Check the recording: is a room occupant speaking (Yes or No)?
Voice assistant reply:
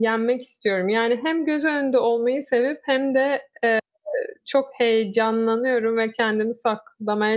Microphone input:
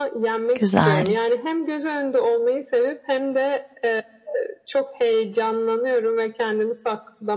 Yes